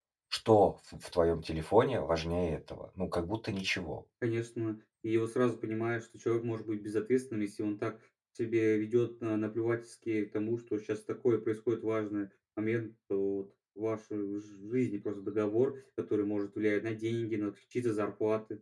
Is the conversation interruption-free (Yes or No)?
Yes